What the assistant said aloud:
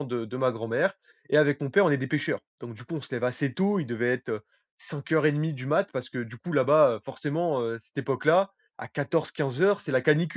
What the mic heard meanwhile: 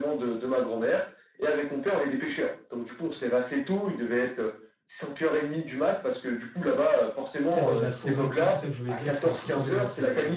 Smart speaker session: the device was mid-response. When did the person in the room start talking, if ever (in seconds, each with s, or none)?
7.5 s